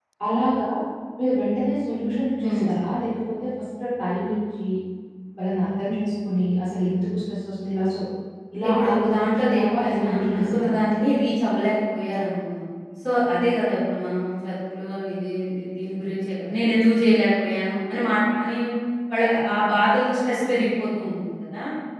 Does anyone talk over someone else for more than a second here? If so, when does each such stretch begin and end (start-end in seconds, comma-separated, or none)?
8.7-10.8